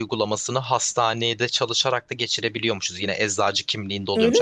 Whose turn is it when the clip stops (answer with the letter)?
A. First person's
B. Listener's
A